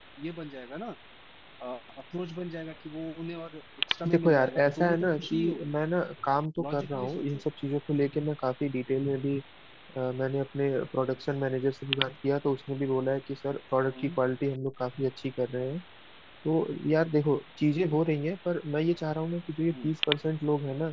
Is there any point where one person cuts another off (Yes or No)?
Yes